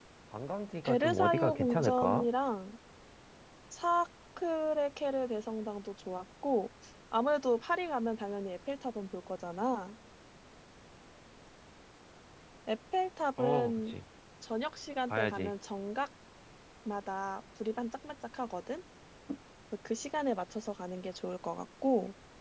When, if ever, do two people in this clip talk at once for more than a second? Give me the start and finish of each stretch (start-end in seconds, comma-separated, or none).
0.8-2.2